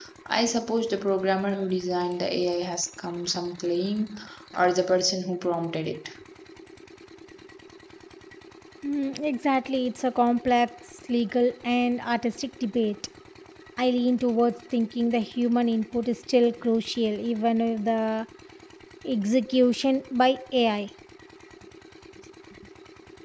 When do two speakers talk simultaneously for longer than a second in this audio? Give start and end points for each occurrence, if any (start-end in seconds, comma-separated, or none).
none